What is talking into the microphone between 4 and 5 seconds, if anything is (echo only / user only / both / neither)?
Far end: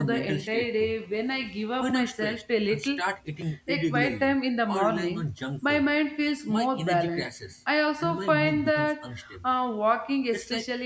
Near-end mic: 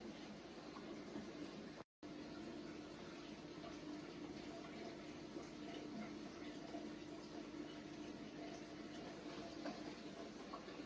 neither